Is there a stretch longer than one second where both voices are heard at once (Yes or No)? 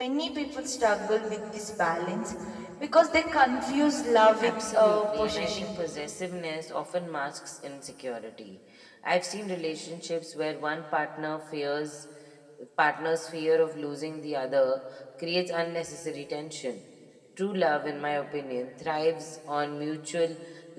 Yes